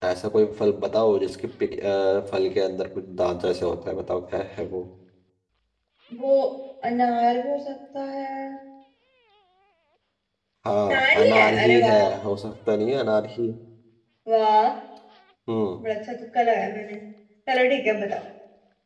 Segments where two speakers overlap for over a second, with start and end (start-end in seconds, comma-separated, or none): 10.8-12.1